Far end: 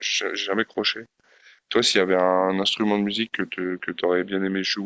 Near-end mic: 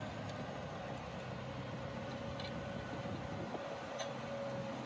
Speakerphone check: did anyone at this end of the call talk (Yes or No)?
No